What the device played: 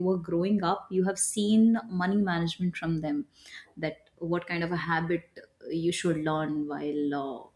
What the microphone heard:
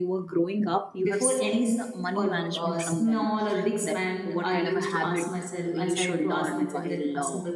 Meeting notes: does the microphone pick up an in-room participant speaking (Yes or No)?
Yes